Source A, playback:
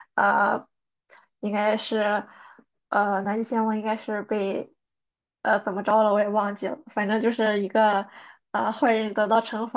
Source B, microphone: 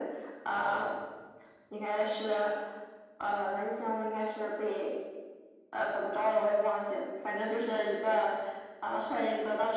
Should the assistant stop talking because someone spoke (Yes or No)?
No